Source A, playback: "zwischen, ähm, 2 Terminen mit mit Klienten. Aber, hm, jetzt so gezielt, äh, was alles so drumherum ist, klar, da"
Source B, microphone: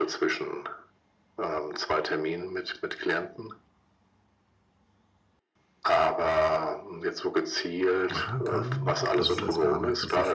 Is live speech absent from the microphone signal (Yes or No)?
No